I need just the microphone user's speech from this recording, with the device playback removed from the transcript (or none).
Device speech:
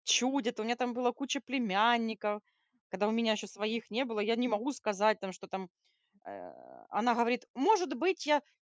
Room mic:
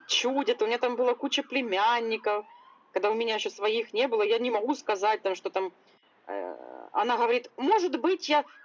none